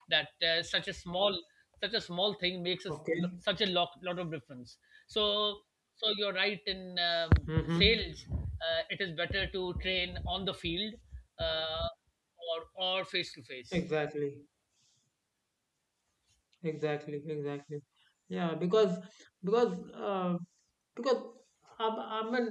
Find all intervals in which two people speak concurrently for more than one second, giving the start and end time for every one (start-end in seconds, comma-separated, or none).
none